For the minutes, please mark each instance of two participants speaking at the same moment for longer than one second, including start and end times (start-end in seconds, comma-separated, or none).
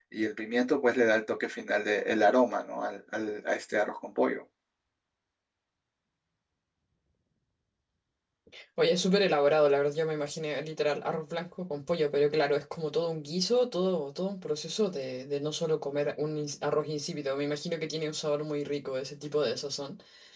none